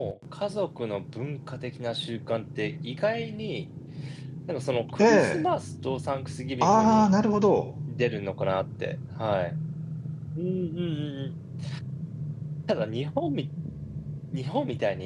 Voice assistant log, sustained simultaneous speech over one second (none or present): none